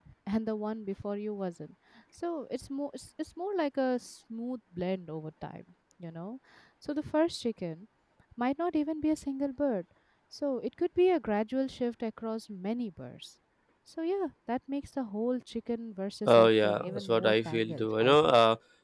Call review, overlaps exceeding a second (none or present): present